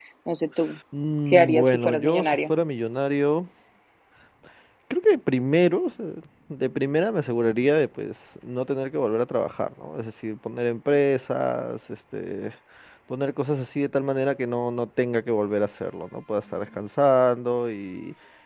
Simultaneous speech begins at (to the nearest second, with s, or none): 1 s